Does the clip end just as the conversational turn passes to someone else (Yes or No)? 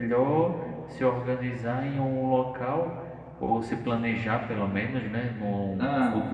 No